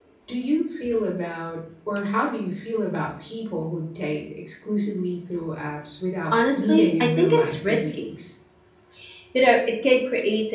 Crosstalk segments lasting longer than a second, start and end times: 6.3-7.9

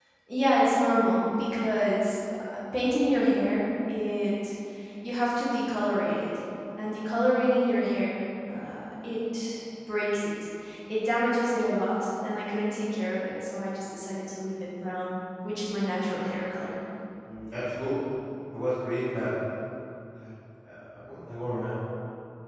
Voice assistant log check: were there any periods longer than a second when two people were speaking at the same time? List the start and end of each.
none

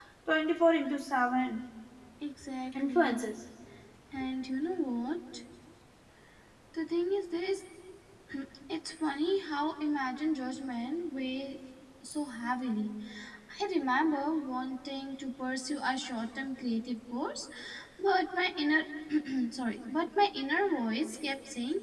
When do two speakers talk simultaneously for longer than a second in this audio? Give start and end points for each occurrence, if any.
none

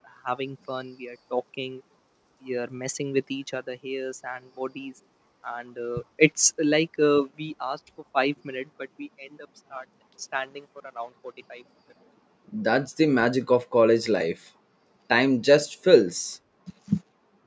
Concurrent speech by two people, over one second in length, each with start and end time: none

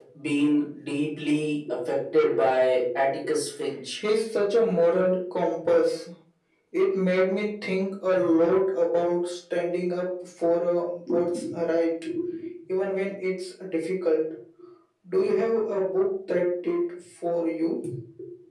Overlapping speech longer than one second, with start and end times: none

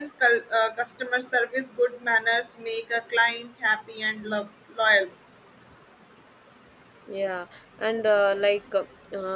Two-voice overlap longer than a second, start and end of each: none

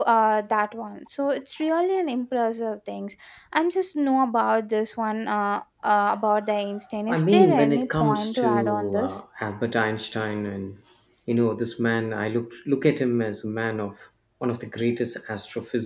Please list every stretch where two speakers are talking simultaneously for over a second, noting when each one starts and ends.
7.1-9.2

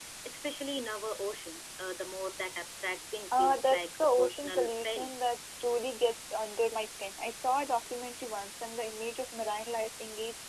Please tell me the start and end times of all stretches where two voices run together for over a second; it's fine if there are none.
3.3-5.1

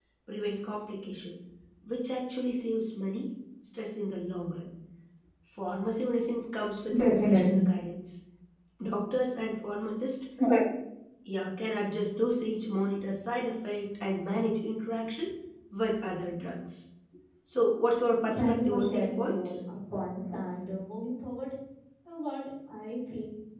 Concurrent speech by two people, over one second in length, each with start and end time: 18.4-19.6

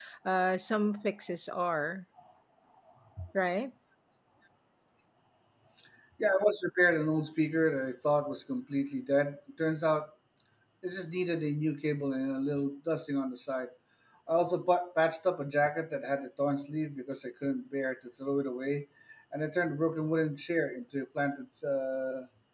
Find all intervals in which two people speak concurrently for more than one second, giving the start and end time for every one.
none

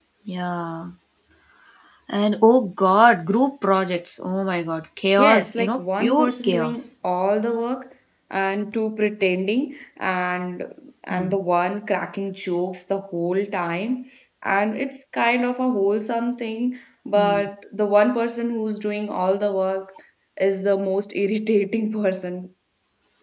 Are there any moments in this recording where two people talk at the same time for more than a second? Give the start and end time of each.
5.2-6.9

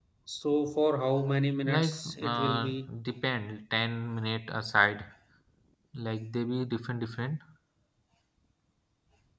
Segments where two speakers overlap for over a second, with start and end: 1.6-2.9

